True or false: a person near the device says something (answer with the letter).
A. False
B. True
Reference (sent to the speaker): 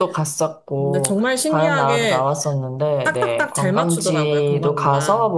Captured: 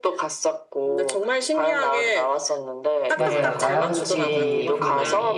B